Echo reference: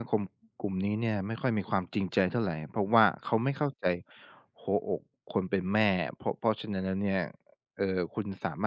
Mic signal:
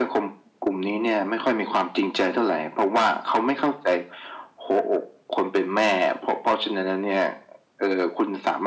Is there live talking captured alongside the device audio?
No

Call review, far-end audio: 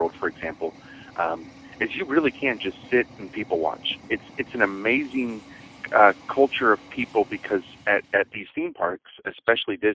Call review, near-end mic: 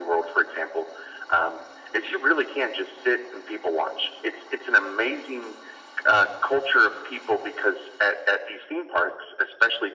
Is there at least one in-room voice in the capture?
No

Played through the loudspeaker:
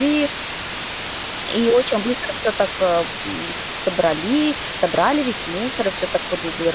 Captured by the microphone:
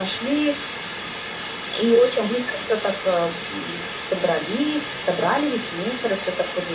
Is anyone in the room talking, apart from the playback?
No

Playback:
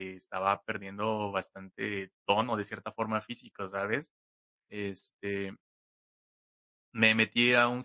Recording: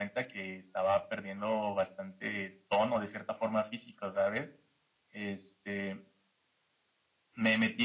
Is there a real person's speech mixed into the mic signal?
No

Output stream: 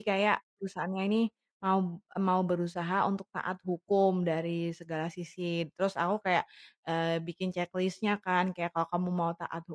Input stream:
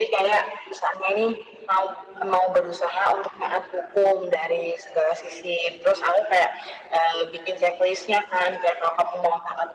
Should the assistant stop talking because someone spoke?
No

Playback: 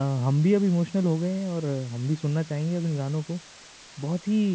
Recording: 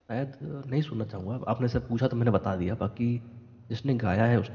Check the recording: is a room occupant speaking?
Yes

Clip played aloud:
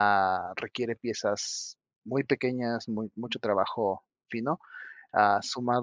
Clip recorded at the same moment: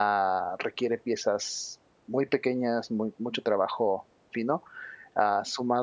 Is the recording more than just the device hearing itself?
No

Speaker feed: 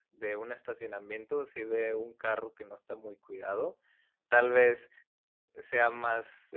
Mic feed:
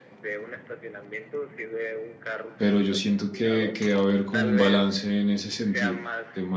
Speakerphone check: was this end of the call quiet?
No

